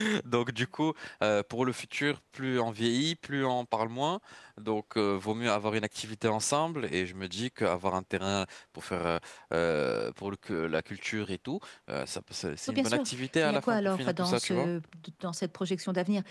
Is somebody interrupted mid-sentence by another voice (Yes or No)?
Yes